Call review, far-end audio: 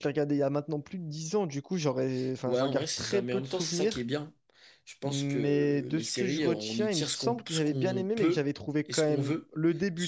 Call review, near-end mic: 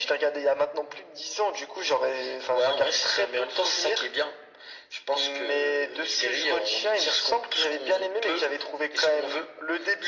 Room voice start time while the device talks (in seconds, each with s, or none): none